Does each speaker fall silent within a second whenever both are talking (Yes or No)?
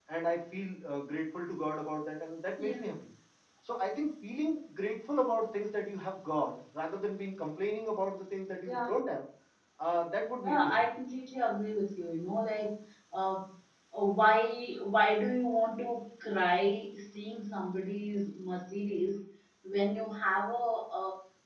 Yes